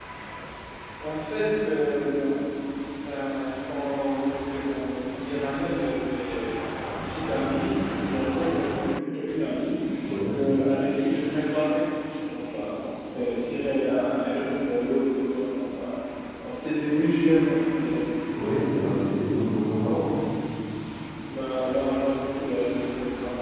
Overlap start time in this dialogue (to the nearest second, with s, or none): none